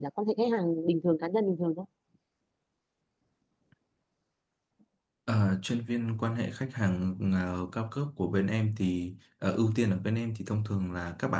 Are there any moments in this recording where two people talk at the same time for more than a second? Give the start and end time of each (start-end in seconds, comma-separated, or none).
none